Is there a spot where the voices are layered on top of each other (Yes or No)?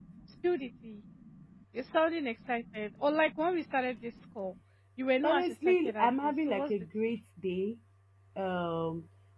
Yes